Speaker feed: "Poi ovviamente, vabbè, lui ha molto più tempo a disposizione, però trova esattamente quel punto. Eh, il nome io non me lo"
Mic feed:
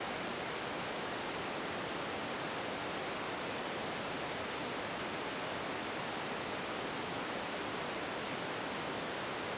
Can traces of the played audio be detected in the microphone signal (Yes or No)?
No